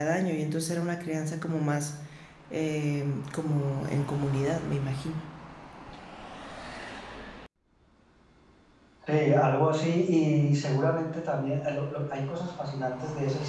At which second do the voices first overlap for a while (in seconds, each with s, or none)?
none